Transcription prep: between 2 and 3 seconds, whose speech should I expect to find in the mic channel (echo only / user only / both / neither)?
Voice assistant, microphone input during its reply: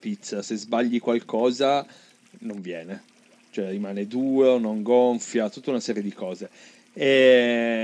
echo only